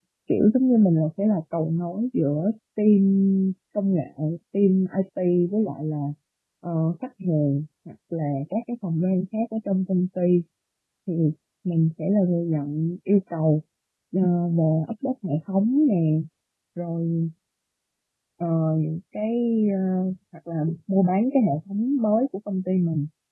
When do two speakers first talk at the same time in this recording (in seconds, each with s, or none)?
none